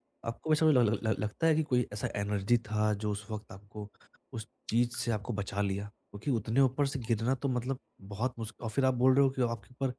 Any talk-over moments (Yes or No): No